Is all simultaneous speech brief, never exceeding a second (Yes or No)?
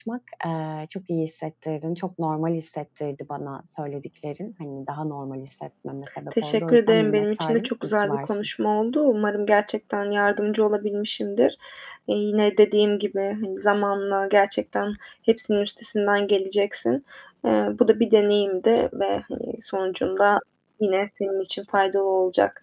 No